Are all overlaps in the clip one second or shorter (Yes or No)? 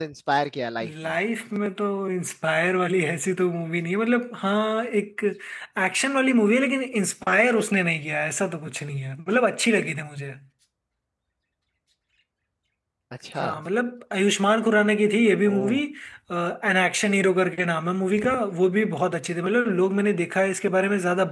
Yes